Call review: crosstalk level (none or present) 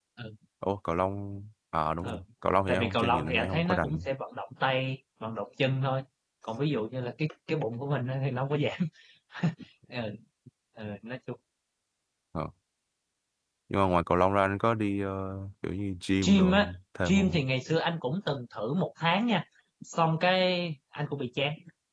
present